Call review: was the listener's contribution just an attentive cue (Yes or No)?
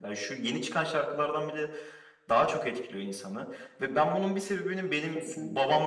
Yes